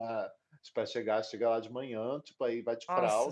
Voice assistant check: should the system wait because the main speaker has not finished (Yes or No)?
Yes